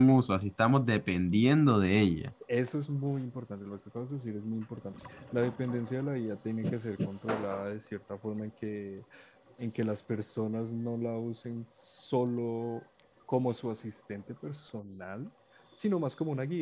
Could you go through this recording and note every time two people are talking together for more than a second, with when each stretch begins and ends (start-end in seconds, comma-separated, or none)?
none